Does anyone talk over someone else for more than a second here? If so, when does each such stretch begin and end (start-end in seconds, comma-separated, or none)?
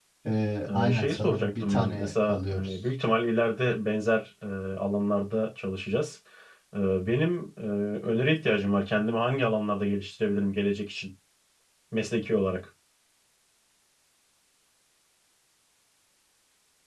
0.7-2.7